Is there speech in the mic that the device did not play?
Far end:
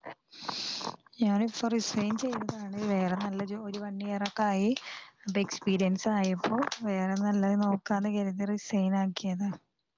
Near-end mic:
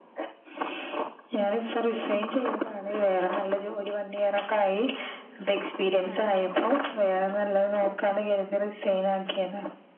Yes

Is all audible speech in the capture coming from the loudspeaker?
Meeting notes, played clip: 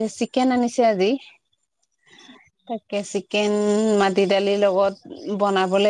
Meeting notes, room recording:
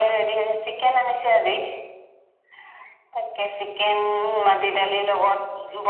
Yes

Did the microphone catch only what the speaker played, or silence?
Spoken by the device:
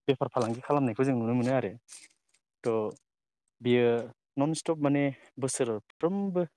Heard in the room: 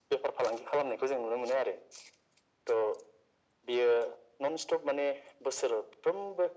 Yes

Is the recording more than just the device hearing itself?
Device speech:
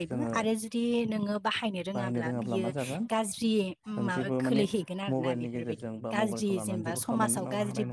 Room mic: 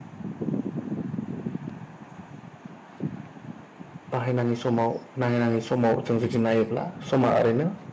Yes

